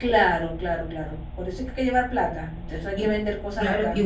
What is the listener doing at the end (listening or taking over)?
taking over